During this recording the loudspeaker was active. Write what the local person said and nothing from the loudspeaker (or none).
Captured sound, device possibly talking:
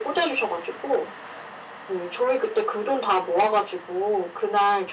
none